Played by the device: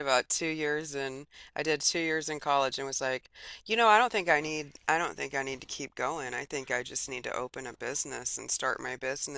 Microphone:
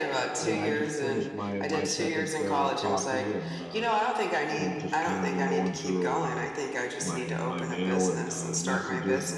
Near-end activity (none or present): present